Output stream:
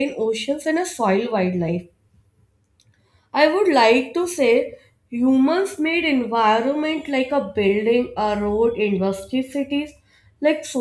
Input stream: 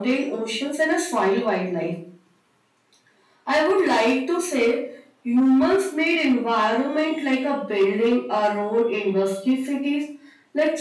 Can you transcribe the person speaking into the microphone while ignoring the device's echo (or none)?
none